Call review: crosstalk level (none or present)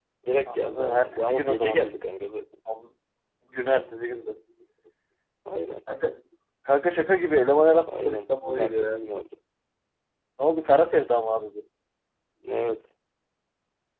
present